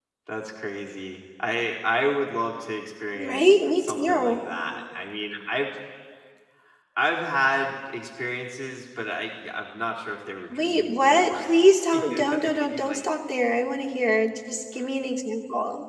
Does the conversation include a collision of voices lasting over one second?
Yes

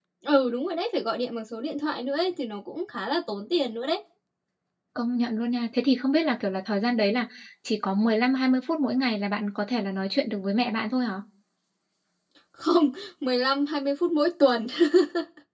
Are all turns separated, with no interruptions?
Yes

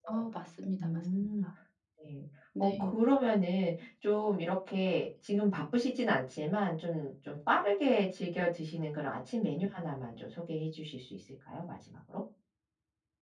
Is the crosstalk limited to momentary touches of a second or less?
Yes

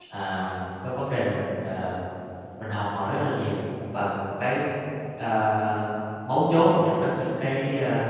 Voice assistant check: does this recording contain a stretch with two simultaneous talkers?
No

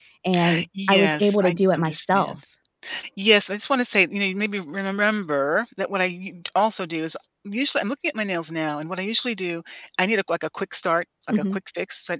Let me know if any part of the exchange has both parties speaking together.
Yes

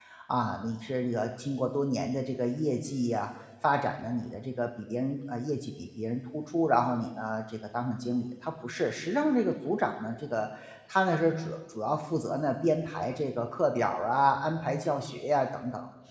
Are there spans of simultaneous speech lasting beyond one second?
No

